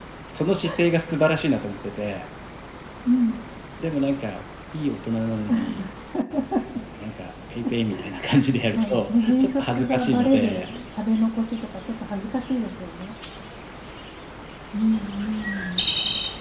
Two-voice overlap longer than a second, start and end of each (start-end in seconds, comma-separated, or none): 8.8-10.7